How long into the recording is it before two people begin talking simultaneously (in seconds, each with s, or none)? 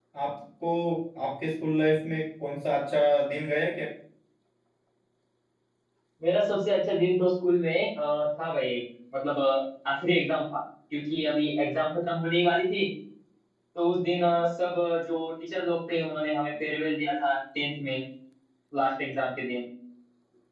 none